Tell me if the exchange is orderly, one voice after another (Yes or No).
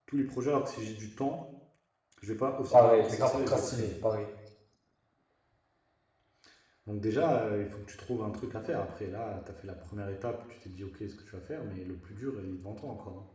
No